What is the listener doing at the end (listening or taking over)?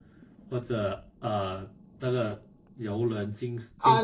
taking over